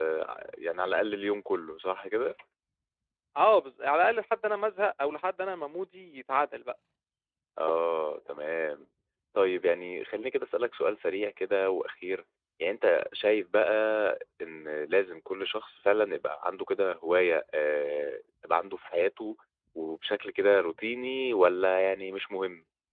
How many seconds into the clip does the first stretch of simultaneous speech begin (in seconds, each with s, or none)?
none